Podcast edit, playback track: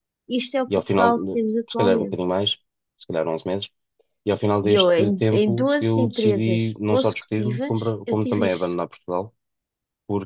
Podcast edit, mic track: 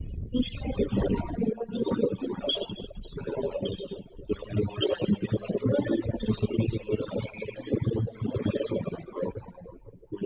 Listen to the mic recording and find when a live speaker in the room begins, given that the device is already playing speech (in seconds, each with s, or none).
none